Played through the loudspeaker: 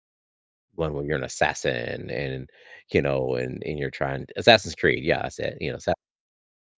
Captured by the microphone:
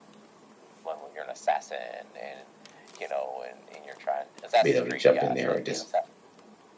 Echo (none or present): present